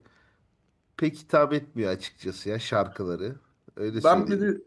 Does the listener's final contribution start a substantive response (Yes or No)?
Yes